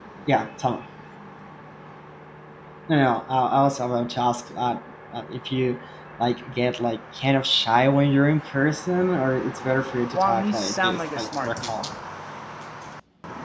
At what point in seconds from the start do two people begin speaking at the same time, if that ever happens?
10 s

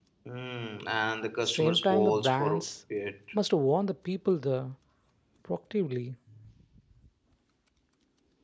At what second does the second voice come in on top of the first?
1 s

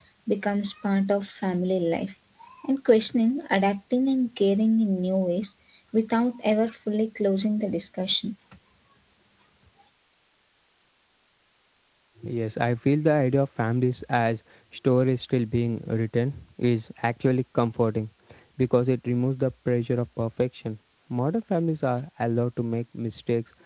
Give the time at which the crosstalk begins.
none

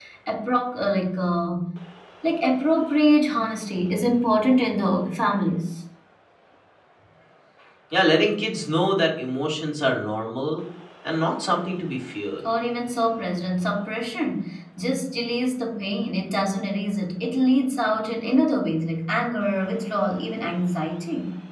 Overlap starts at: none

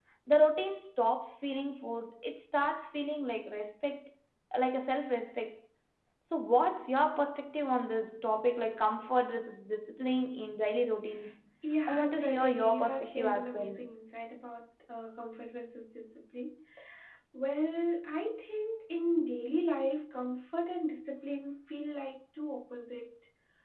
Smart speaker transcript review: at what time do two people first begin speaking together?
12 s

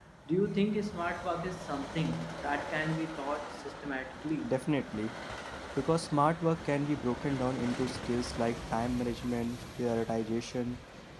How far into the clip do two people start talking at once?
none

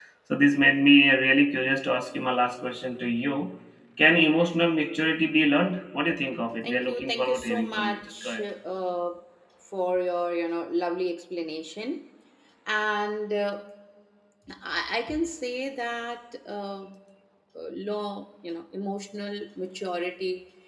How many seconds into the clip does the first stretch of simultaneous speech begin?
7 s

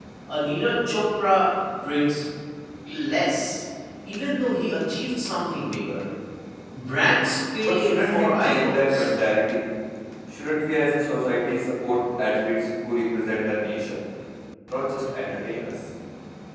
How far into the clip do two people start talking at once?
8 s

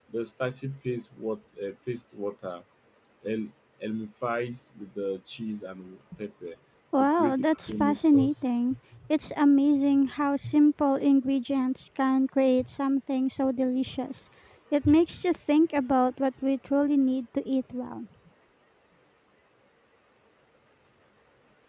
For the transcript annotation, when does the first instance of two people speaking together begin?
7 s

